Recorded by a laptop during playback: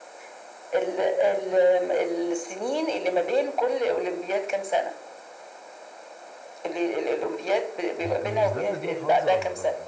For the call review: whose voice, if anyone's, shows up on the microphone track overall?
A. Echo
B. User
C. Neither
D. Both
D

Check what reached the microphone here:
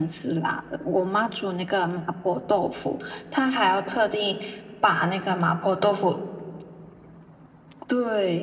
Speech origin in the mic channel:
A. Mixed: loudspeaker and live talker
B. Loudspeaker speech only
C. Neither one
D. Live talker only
B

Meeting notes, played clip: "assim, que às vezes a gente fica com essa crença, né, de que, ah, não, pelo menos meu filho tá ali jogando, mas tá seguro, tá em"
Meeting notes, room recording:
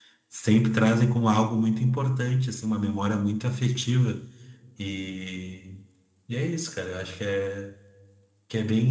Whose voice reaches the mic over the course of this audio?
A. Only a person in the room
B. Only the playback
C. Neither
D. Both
A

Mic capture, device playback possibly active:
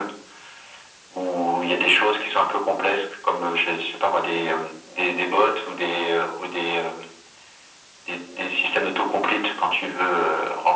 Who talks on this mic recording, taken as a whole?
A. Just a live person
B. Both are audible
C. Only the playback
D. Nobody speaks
C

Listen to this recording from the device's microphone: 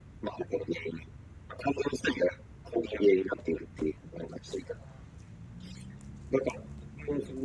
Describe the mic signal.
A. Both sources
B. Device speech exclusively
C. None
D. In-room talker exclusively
B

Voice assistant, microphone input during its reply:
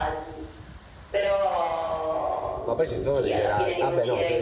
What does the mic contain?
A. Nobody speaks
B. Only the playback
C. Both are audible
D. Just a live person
C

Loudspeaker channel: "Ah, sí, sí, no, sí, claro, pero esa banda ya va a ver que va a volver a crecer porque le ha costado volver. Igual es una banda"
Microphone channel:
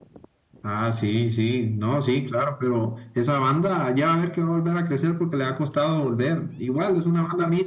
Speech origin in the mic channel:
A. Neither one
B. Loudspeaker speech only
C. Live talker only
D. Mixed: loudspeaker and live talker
B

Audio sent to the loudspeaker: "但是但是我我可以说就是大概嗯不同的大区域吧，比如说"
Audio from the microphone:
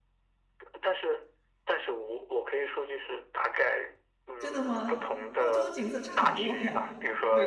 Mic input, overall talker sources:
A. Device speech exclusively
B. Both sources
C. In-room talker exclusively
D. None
B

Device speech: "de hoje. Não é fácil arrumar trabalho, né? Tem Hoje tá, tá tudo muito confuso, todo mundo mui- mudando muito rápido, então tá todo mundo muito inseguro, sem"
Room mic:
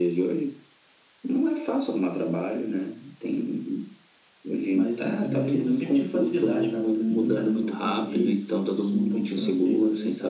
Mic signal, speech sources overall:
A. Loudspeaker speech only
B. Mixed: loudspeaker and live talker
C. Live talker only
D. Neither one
B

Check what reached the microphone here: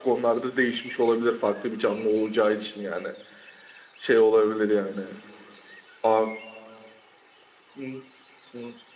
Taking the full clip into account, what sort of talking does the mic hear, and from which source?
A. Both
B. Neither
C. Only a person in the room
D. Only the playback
D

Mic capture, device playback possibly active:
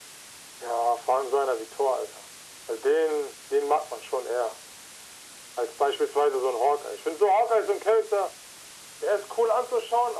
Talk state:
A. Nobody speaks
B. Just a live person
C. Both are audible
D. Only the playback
D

